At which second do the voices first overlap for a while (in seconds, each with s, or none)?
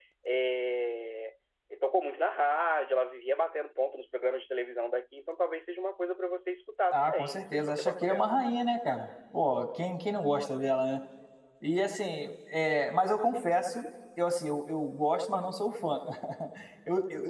6.9 s